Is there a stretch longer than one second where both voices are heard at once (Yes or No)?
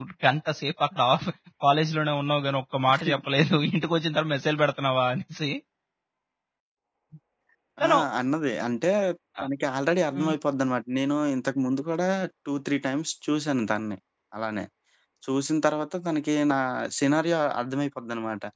No